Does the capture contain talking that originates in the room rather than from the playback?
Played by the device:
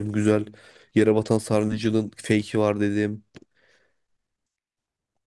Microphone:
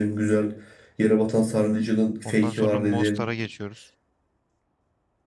Yes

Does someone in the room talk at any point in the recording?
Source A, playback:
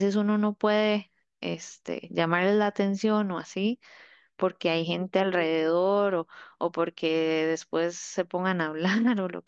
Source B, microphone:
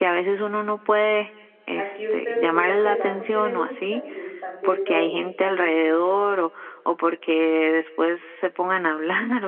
Yes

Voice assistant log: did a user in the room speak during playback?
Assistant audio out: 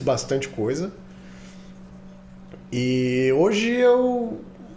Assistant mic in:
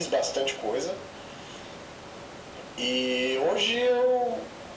No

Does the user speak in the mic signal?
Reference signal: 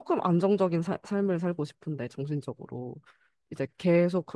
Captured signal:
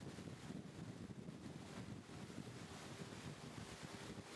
No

